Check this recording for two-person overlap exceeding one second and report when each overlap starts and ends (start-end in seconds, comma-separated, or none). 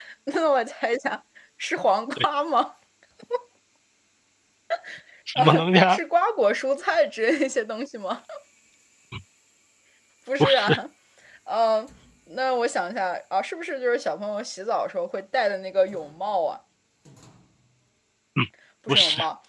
none